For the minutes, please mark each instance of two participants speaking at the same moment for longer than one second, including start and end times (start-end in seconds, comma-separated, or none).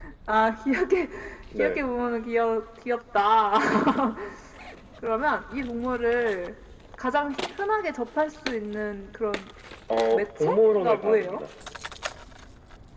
10.1-11.4